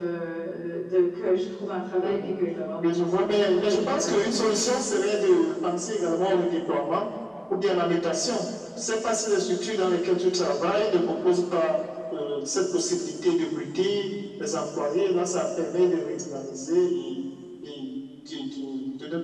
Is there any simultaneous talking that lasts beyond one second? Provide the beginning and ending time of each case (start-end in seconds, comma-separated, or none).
2.8-4.3